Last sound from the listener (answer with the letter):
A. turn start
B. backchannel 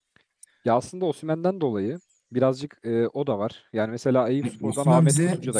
A